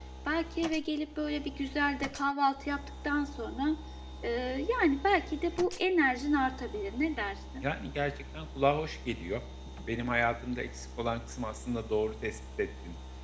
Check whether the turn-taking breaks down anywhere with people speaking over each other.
No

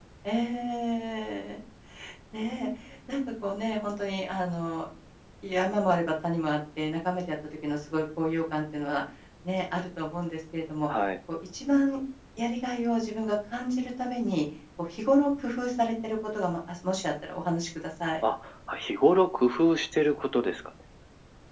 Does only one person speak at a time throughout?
Yes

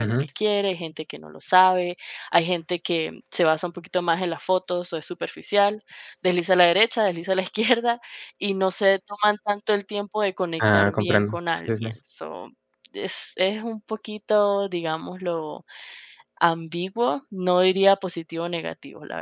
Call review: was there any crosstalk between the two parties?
Yes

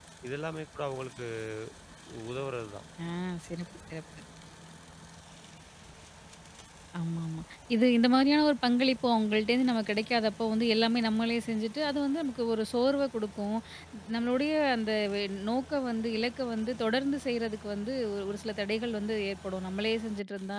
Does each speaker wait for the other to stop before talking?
Yes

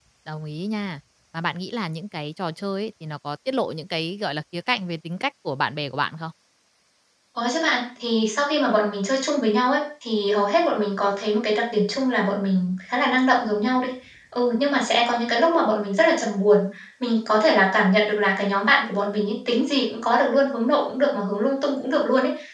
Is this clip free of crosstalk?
Yes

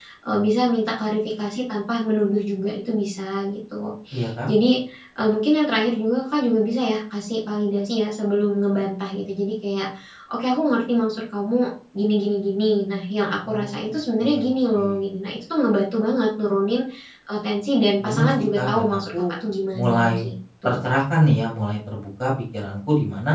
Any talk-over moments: Yes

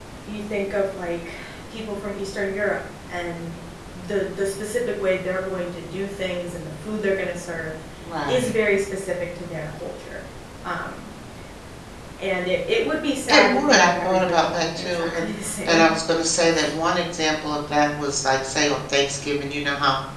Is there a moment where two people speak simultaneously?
Yes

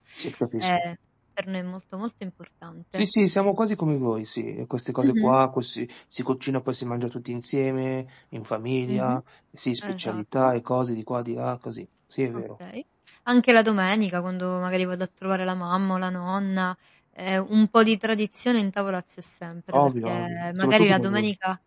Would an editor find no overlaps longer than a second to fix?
No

